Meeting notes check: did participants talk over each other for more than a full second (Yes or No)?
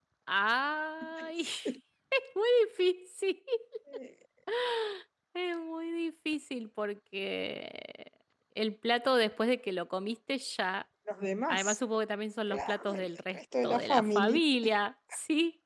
Yes